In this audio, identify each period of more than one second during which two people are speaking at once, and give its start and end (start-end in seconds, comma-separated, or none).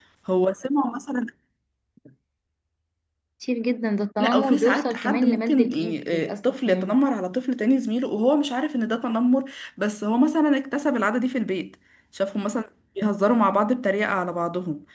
4.2-7.0